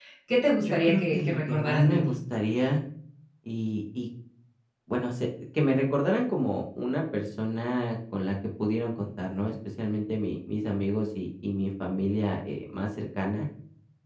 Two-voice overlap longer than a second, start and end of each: 0.6-2.1

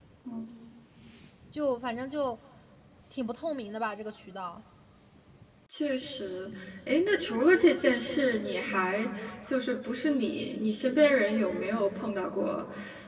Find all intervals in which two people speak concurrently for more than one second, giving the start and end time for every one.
none

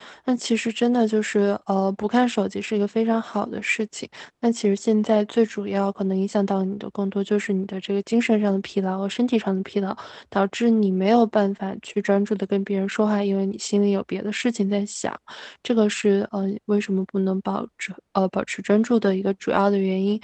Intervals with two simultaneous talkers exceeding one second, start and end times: none

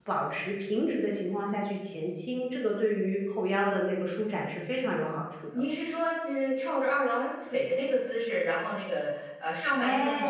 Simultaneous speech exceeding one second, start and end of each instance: none

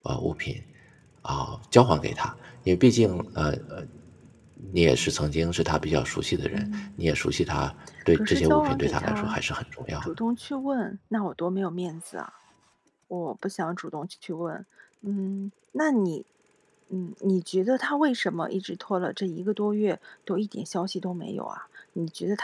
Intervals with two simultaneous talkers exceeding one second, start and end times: 8.2-9.4

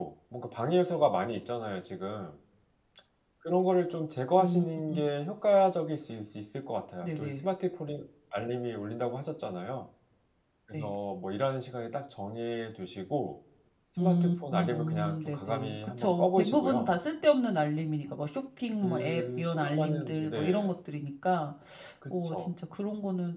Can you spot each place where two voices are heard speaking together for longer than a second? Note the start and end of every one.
14.0-16.9, 18.8-20.7

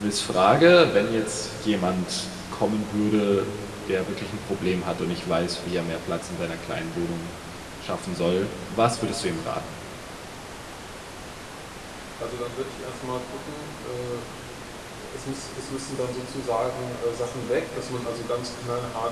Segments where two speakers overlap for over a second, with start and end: none

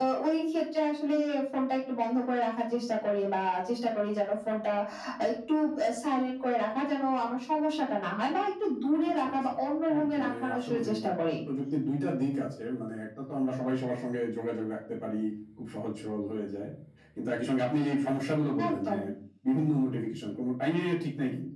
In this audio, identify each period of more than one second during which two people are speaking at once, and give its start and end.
9.9-11.4

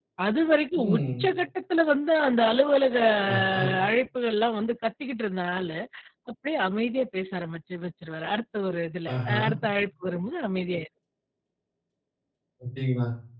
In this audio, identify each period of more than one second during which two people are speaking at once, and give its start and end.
none

